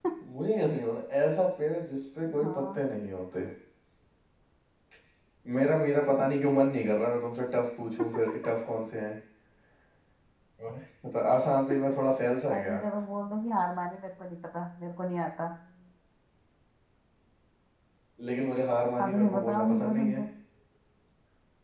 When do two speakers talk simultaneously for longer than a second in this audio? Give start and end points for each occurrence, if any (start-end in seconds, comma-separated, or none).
19.0-20.2